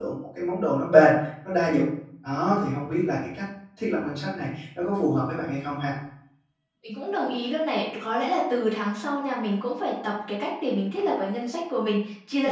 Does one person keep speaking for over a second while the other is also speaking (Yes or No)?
No